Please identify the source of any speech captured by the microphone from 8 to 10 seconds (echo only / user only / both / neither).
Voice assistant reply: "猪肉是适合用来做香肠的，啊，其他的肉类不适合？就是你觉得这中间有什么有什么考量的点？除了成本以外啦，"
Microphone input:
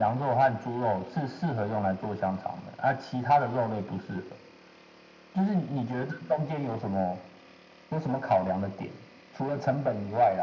echo only